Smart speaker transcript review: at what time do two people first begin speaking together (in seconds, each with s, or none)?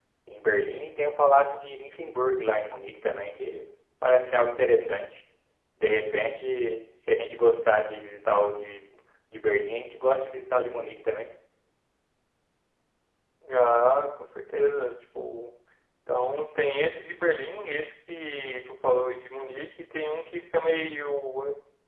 none